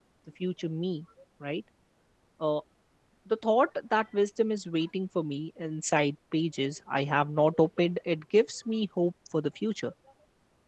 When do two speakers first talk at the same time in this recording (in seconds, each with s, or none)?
none